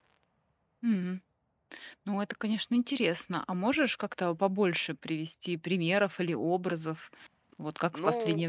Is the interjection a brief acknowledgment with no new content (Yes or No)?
Yes